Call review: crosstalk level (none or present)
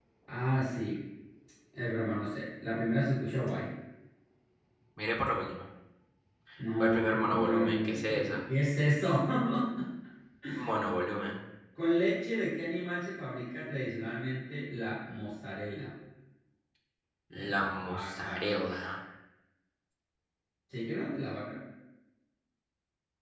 present